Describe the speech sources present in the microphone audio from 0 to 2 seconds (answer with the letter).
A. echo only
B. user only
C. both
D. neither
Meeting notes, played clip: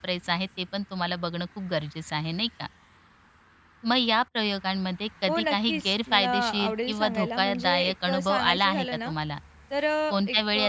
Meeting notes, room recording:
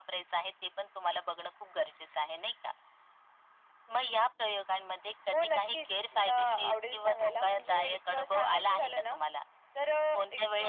A